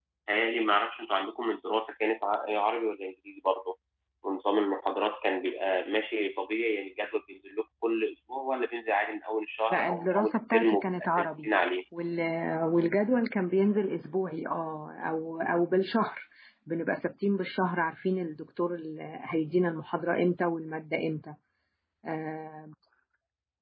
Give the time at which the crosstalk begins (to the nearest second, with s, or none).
10 s